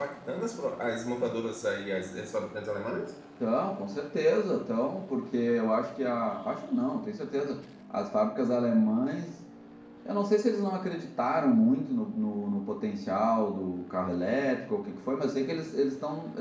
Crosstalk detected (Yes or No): No